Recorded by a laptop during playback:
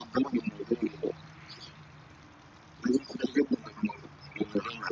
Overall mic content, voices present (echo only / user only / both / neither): echo only